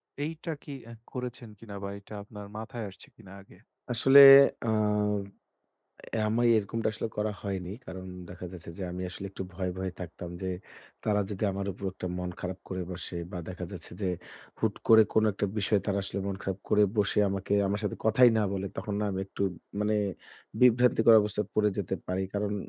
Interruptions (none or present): none